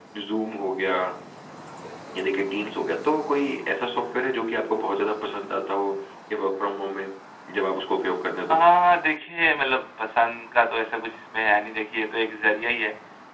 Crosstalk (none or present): none